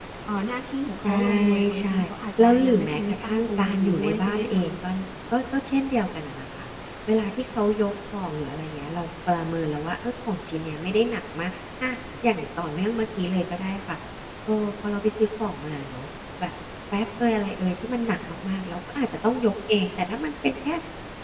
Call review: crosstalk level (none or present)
present